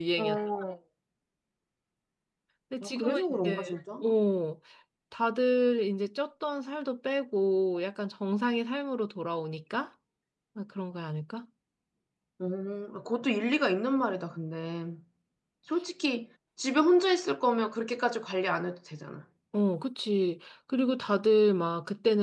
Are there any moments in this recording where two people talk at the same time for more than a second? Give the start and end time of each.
2.8-4.0

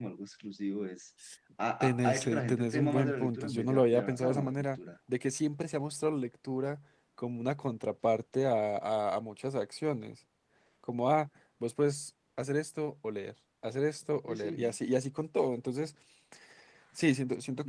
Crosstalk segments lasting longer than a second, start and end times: 1.8-4.8

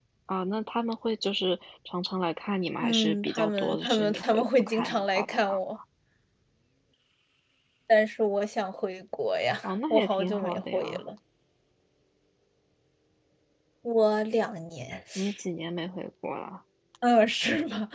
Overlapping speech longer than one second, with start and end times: 2.8-5.6, 9.6-11.0

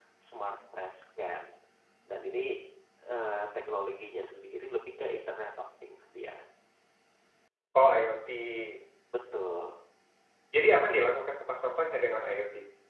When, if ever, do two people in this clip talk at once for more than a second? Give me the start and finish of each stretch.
none

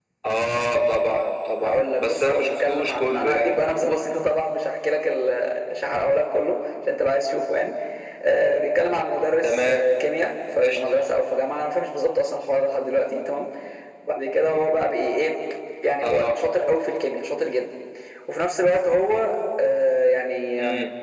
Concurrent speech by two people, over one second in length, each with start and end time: 1.6-3.6

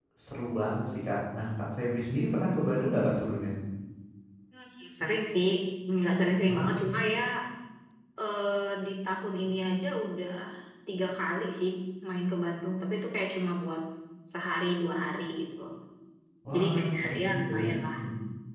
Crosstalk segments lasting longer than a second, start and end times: 16.5-17.8

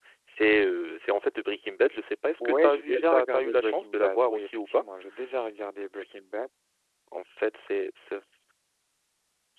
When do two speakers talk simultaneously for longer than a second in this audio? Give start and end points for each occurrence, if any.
2.4-4.8

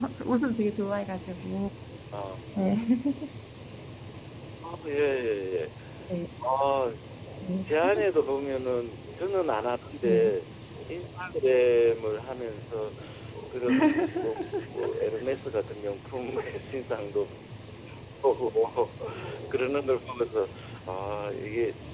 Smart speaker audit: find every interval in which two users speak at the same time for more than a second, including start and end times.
none

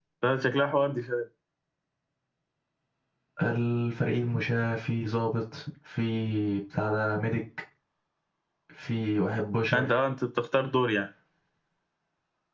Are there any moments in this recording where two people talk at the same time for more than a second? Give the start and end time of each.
none

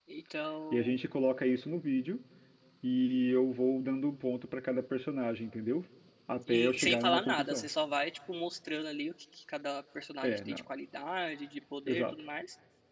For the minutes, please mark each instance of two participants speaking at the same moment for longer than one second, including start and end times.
6.5-7.7

